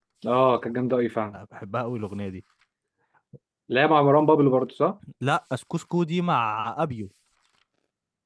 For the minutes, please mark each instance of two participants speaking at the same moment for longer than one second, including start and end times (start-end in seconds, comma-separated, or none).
none